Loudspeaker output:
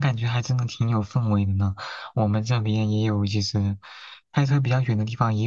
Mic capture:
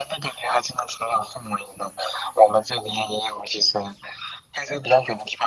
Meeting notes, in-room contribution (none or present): none